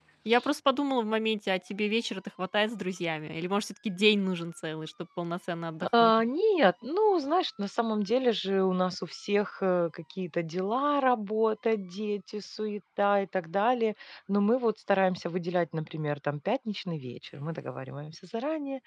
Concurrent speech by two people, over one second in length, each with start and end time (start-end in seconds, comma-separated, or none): none